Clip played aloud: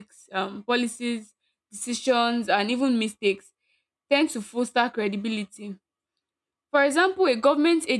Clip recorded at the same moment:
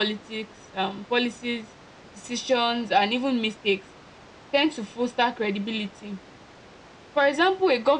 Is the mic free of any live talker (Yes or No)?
Yes